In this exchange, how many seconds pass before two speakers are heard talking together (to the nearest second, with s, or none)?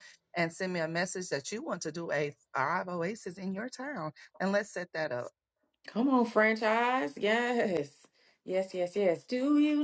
none